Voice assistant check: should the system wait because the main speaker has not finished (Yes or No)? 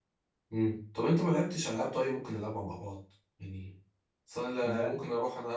Yes